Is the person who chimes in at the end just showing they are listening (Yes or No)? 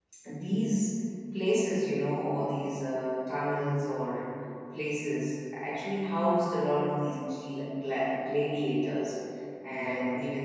Yes